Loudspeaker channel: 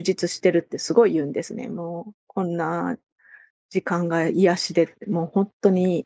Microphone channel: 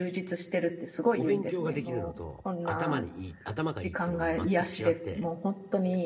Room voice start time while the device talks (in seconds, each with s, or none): 1.1 s